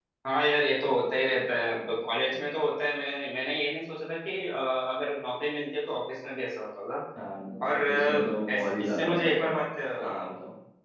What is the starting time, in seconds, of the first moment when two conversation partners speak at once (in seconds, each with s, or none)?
7.8 s